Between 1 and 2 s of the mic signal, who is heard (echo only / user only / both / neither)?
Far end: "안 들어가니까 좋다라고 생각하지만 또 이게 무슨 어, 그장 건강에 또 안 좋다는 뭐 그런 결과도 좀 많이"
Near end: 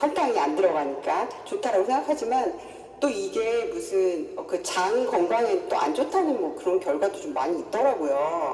echo only